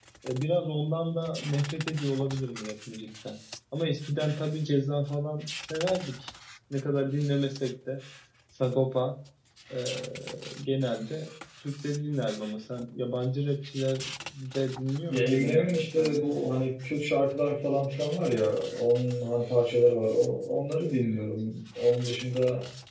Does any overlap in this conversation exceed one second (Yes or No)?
Yes